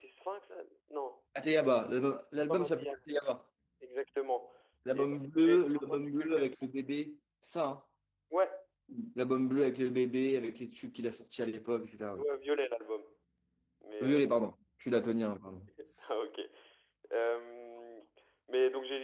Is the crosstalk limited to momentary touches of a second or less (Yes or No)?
No